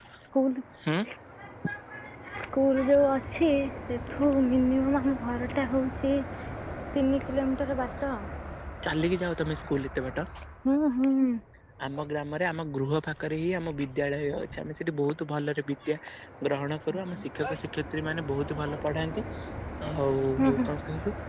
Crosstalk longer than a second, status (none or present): none